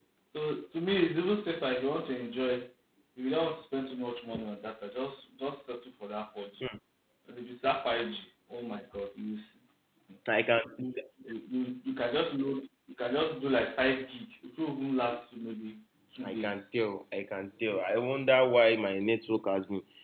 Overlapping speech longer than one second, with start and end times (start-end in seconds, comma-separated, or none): none